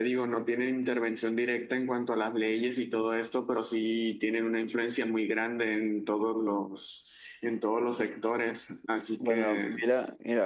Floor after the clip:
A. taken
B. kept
A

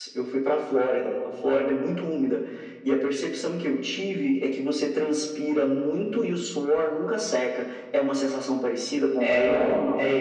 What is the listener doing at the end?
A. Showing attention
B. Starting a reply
B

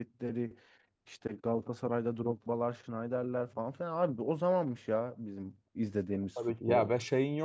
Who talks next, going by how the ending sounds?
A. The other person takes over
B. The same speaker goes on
A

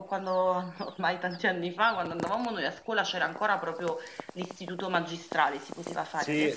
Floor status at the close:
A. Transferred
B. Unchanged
A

